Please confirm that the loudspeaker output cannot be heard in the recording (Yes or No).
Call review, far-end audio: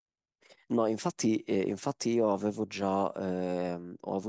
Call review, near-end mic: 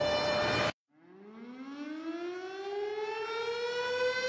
Yes